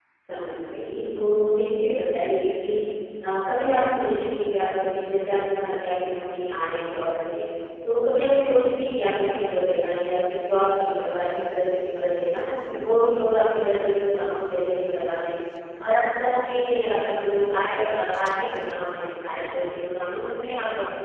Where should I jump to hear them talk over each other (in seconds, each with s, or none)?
none